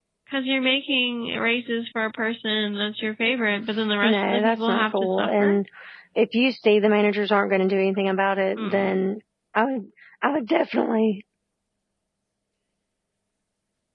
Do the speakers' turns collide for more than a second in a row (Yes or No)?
Yes